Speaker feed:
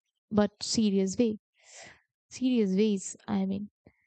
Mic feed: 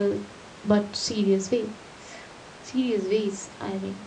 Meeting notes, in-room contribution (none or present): none